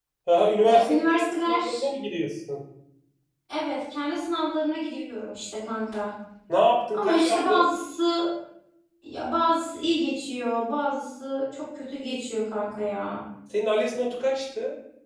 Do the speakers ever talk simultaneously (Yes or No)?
Yes